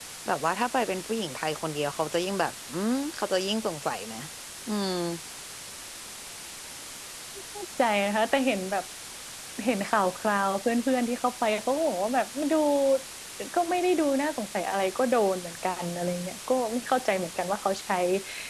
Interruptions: none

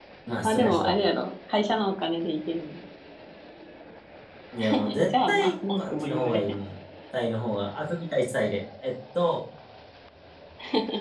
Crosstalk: present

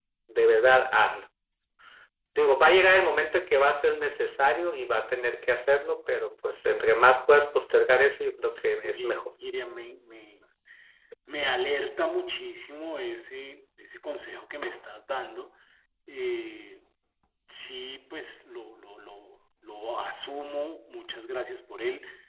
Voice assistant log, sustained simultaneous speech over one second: none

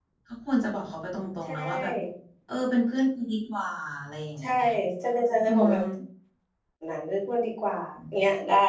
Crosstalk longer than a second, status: none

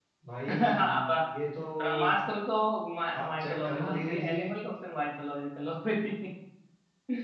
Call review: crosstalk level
present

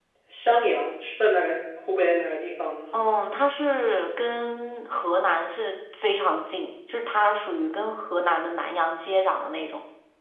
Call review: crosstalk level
none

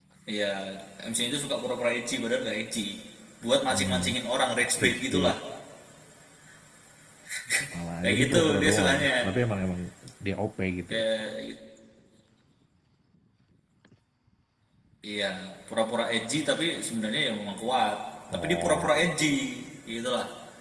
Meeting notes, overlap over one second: present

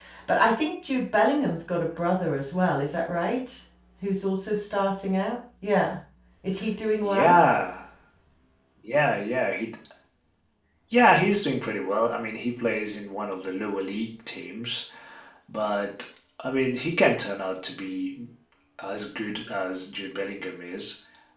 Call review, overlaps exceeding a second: none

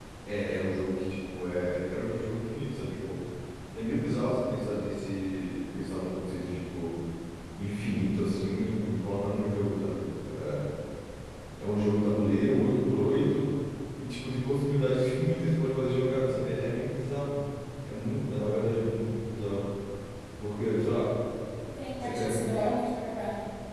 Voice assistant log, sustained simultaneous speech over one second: none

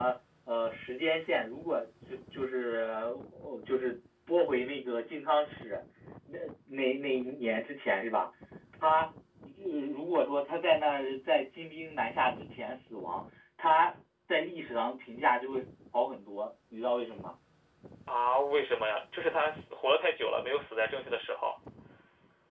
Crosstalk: none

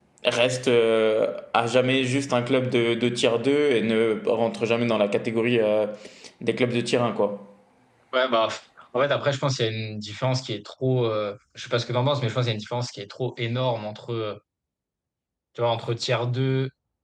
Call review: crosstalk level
none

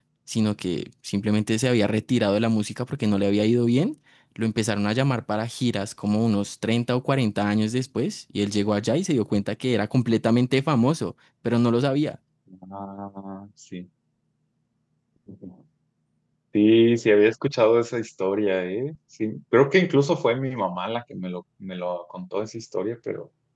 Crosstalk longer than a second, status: none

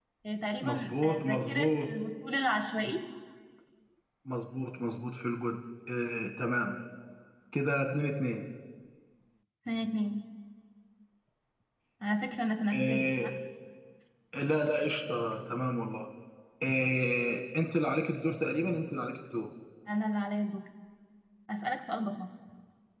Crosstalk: present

